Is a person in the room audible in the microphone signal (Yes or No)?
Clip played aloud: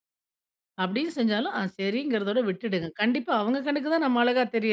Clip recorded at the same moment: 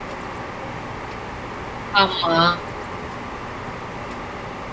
Yes